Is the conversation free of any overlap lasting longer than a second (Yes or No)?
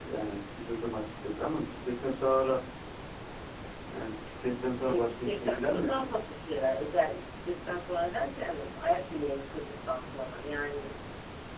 No